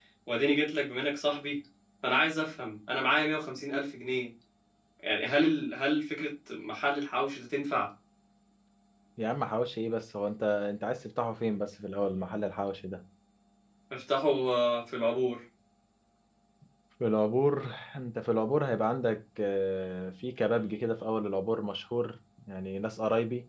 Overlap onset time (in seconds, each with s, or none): none